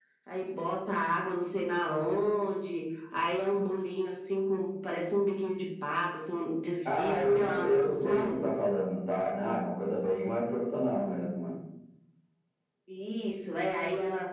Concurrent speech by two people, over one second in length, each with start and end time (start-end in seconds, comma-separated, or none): 6.8-8.3